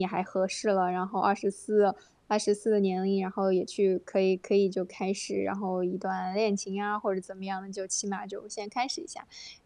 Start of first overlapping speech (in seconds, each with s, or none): none